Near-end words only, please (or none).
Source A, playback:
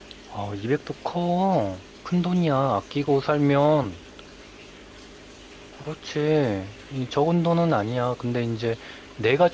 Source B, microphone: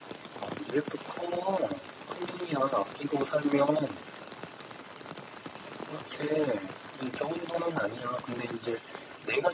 none